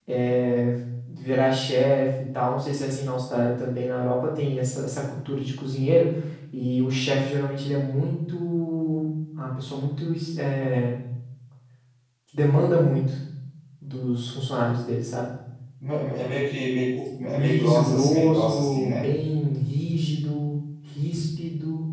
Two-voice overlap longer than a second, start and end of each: 17.4-19.1

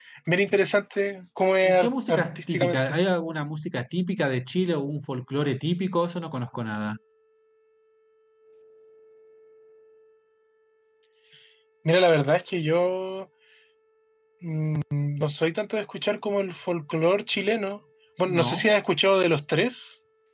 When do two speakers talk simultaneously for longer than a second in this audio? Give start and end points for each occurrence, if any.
1.6-3.0

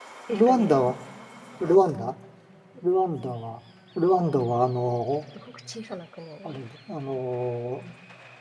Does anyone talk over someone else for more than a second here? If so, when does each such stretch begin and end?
none

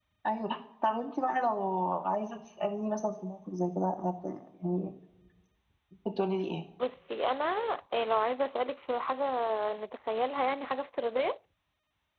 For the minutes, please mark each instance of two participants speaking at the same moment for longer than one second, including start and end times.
none

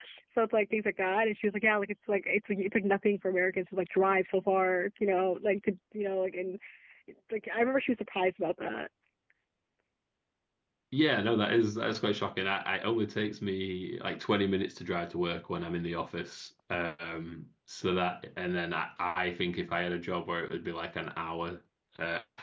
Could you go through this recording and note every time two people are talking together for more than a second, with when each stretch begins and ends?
none

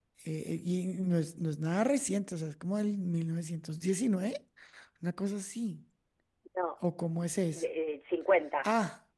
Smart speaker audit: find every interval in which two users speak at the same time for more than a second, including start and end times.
none

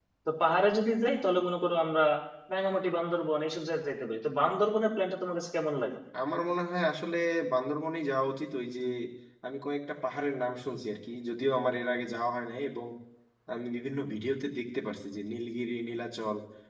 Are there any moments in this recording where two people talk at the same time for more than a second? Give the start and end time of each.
none

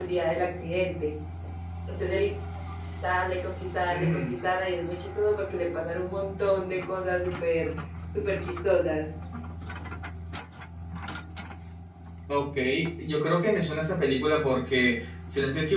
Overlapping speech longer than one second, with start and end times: none

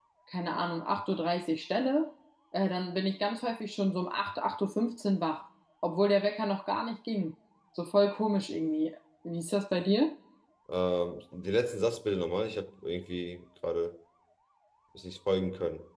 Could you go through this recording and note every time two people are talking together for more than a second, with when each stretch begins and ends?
none

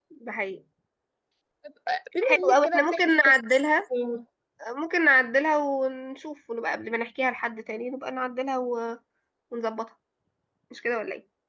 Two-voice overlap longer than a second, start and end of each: 2.2-3.7

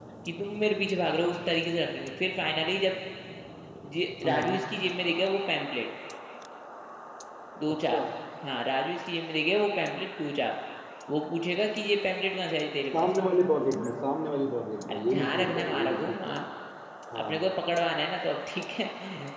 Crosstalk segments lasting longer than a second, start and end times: 14.9-16.2

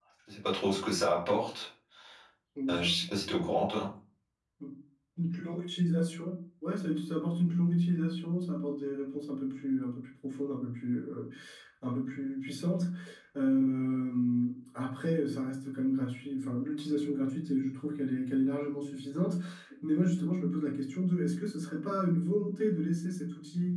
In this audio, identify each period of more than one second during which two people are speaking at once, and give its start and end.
none

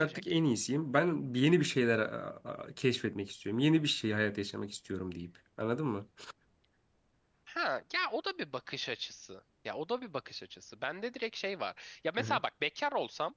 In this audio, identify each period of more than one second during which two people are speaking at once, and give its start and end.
none

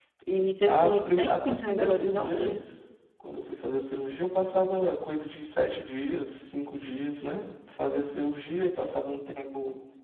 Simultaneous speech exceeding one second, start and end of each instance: 0.7-2.6

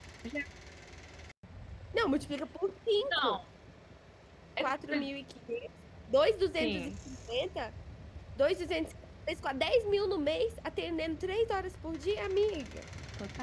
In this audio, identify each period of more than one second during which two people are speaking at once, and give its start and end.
none

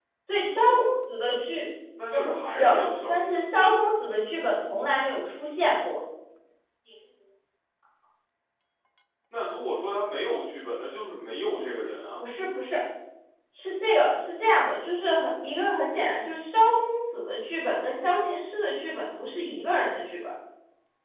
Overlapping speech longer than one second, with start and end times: 2.1-3.4

